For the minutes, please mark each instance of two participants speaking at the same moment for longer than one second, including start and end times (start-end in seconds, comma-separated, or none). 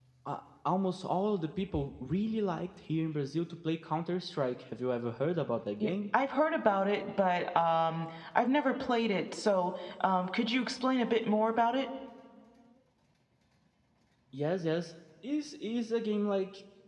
none